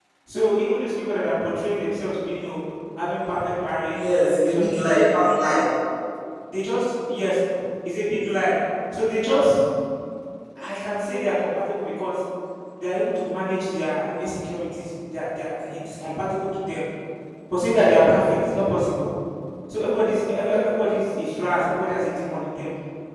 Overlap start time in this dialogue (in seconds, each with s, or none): 3.9 s